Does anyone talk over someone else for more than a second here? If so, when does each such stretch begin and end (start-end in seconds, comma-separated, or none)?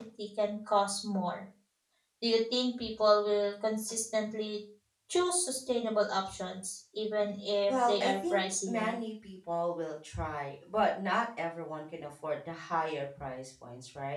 7.6-9.0